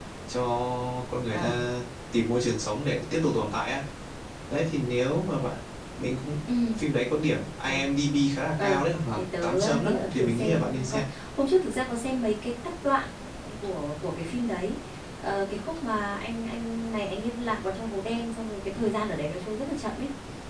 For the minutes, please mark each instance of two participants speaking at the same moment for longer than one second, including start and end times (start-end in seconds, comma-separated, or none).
8.6-11.0